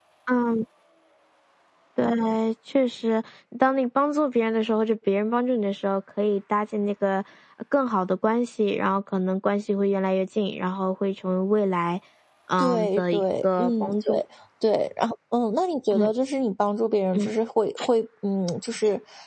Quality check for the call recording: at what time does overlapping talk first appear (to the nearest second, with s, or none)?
13 s